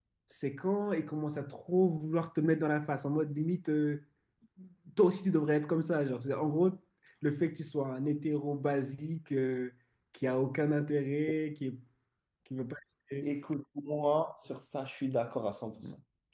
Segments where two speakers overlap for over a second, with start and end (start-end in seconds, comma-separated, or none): none